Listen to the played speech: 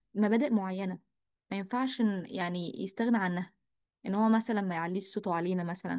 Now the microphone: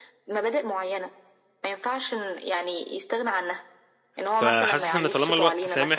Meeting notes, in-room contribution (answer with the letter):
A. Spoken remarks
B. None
A